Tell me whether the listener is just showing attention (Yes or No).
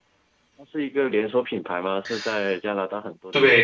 No